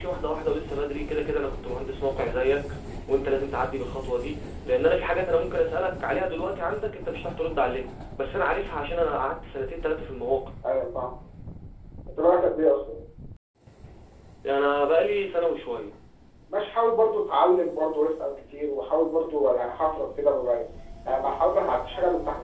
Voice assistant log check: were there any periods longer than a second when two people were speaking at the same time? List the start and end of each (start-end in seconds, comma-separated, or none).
none